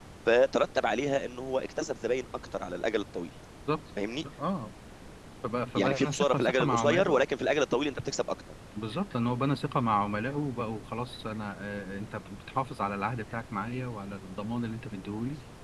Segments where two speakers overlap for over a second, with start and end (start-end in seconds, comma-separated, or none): 5.8-7.2